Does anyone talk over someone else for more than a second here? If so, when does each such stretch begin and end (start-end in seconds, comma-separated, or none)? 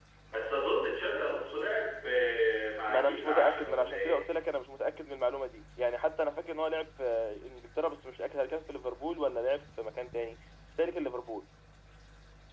2.9-4.2